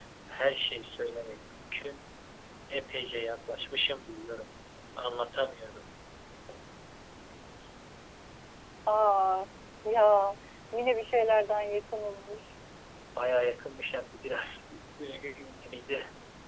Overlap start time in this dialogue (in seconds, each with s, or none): none